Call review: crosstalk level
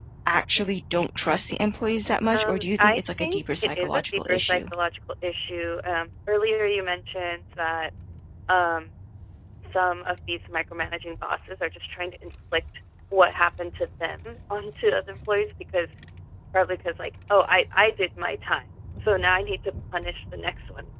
present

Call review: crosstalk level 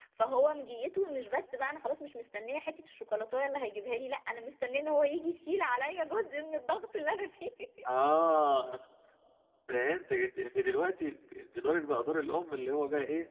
none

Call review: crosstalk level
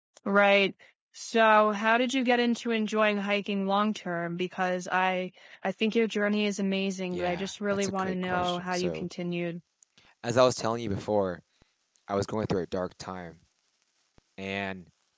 present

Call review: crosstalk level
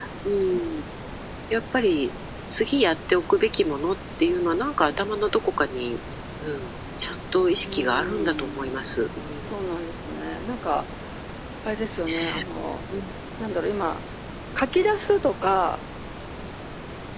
present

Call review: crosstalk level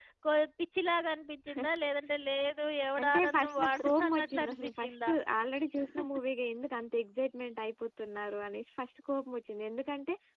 present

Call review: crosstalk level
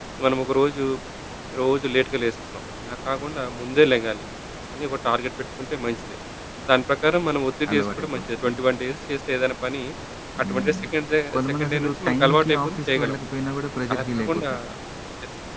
present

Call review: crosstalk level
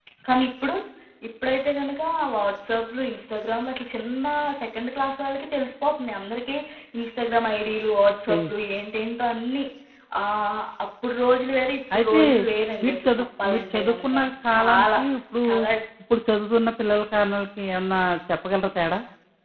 present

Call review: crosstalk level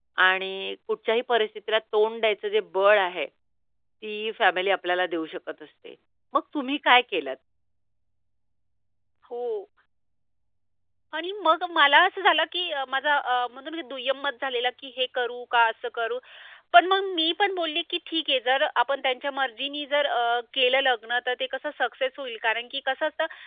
none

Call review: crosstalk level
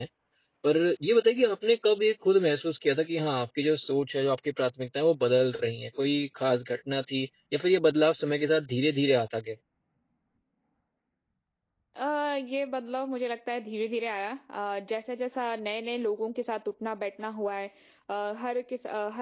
none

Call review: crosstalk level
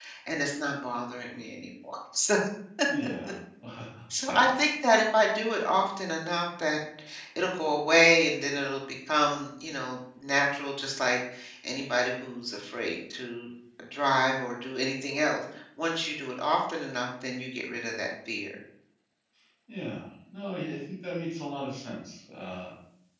none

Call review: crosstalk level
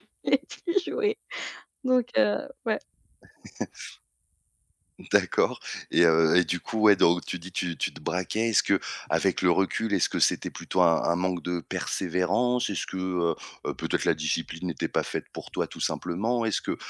none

